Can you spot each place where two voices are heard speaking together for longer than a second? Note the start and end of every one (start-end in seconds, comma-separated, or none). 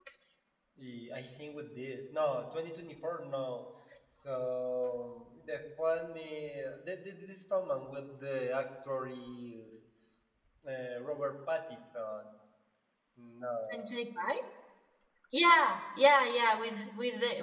none